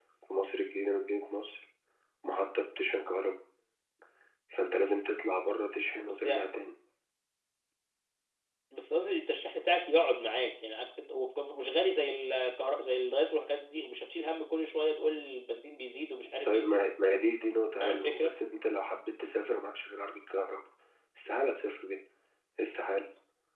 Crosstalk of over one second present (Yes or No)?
No